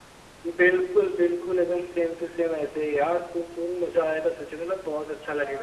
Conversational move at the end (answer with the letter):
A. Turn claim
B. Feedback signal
A